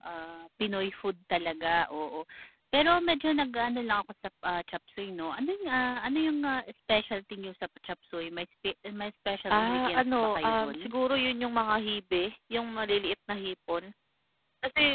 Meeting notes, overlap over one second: present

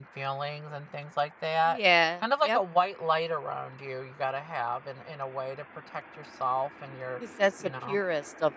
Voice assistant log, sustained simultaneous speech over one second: none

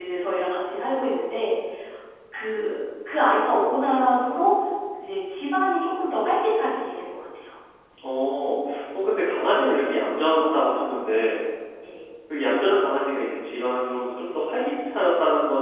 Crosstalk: none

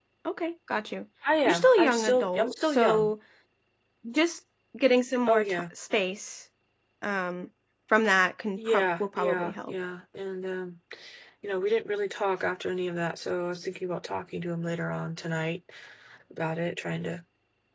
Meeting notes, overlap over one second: present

